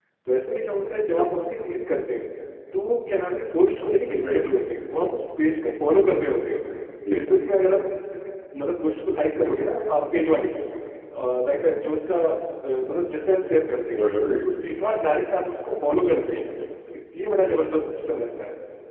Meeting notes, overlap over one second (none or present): none